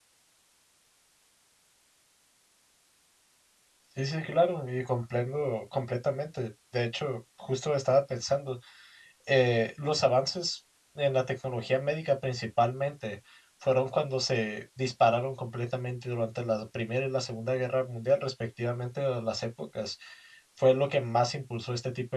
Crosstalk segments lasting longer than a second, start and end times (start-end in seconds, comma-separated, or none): none